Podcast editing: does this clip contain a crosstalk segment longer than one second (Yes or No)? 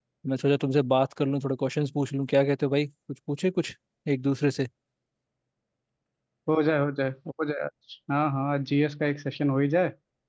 No